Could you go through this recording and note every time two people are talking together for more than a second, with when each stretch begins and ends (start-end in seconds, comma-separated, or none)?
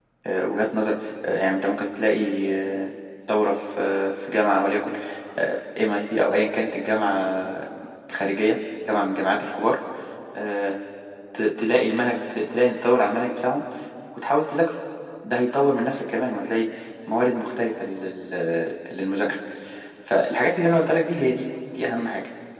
none